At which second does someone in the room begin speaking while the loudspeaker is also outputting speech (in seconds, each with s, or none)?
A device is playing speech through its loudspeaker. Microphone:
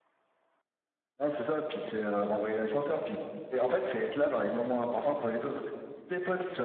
none